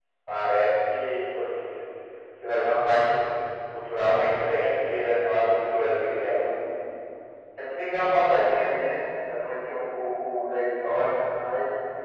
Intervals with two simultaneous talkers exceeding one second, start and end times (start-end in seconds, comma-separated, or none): 4.0-6.5